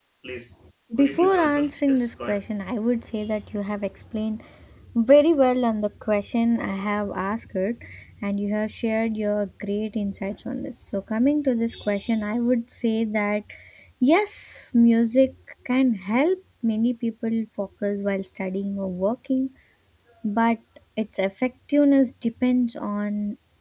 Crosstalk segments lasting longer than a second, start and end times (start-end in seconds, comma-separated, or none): 1.0-2.4